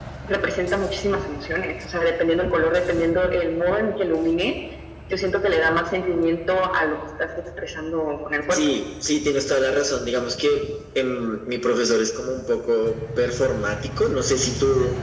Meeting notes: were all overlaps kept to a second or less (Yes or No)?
Yes